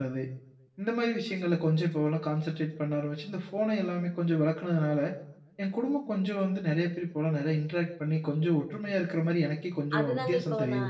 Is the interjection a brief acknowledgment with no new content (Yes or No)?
No